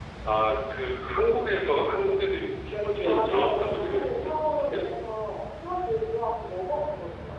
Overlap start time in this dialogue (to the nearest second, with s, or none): 3 s